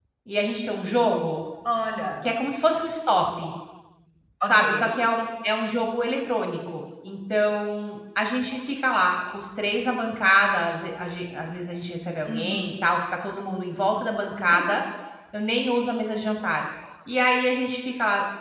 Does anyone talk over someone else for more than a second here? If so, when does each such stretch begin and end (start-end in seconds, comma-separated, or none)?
none